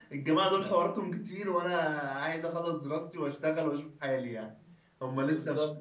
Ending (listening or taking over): listening